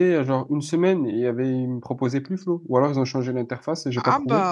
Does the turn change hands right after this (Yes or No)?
Yes